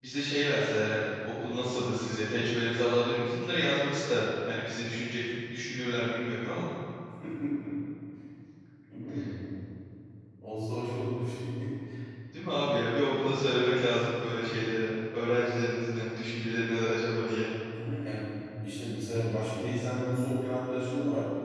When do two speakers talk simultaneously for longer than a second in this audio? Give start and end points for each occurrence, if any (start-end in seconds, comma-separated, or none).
none